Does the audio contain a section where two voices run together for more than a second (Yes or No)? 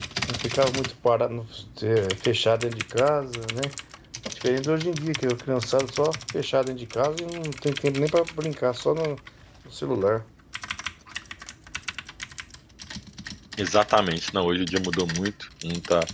No